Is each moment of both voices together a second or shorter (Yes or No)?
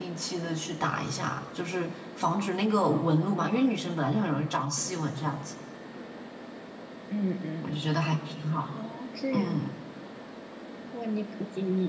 Yes